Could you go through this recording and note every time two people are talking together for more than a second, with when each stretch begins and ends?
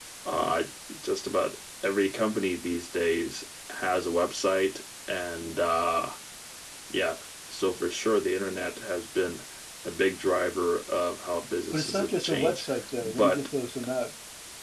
11.7-13.4

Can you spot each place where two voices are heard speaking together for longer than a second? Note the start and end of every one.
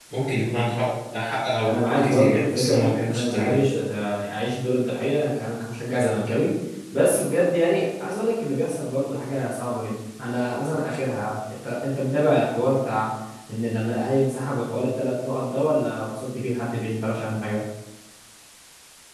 1.6-3.6

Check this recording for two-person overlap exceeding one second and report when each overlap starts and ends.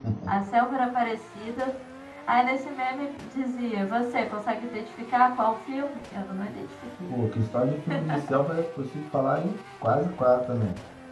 none

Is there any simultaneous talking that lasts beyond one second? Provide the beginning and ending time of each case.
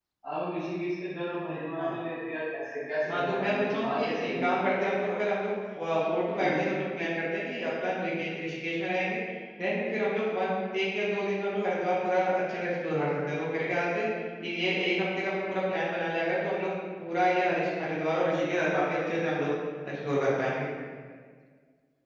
3.1-4.6

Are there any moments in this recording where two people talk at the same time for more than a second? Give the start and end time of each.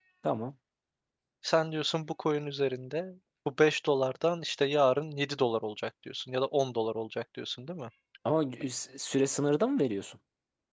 none

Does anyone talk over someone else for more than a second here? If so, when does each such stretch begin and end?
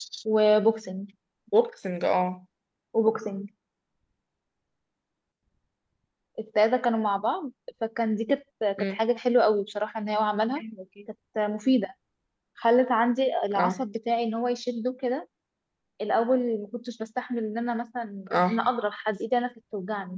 none

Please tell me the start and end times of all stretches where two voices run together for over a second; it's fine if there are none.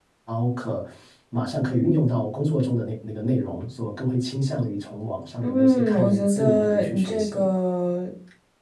5.4-7.4

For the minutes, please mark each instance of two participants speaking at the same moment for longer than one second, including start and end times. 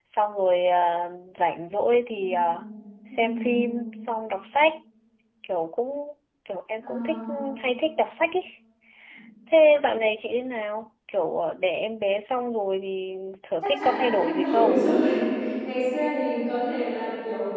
13.6-14.8

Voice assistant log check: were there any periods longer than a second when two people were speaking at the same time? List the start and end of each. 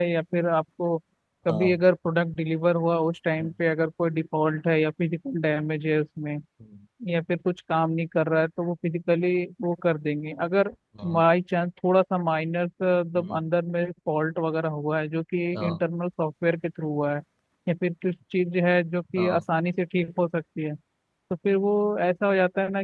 none

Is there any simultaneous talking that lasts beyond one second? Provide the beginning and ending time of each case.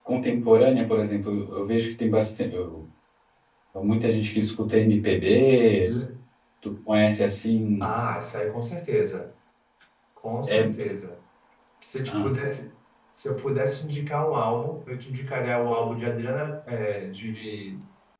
none

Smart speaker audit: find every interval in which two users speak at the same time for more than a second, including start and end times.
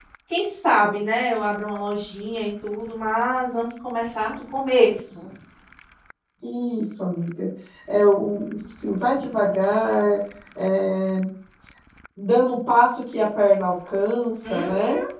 none

